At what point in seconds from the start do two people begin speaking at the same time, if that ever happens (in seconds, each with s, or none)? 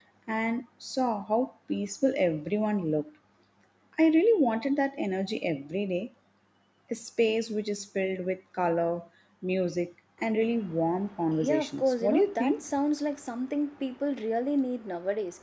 11.3 s